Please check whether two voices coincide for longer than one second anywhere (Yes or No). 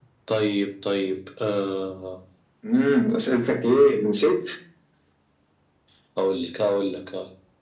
No